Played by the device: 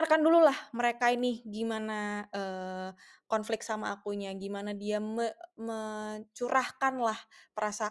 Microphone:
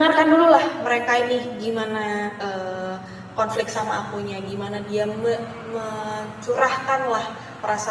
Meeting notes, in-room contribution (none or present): none